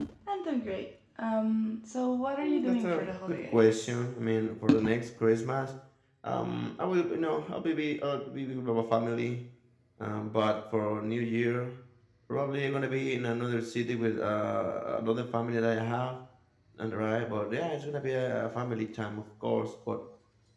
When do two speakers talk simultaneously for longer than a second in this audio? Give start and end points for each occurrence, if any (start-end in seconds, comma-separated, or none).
2.4-3.9